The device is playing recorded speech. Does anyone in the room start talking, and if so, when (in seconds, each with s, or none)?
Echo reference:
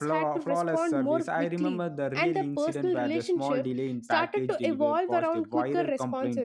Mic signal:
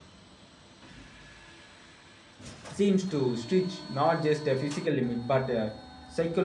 2.7 s